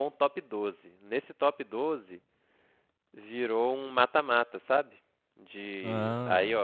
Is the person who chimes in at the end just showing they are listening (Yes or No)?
Yes